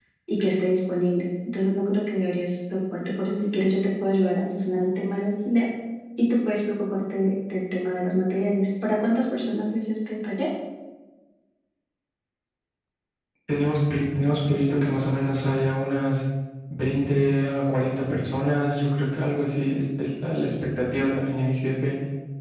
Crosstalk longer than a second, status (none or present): none